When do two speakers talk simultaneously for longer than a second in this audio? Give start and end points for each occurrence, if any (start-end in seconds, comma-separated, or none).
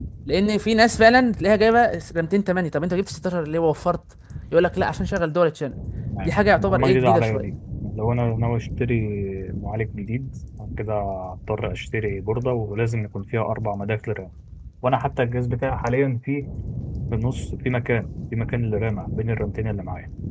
6.2-7.4